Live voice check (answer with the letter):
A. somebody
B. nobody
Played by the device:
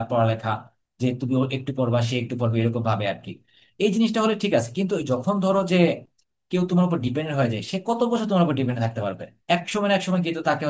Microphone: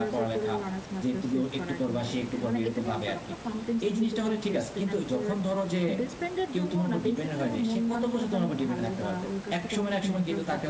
A